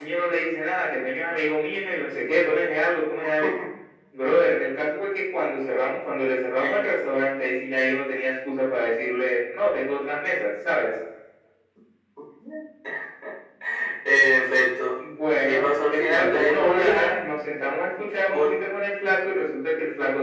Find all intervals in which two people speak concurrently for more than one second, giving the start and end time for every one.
15.3-17.1

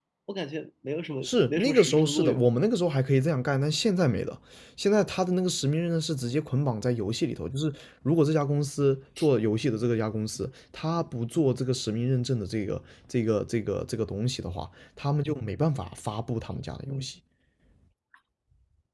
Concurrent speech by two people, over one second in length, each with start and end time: 1.2-2.4

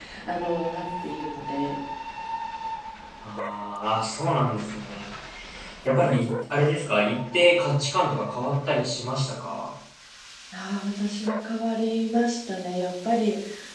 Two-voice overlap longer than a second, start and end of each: none

